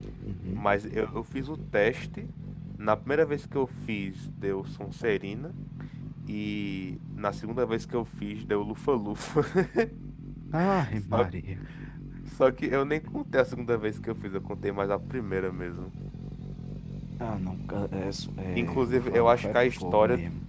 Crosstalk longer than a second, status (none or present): present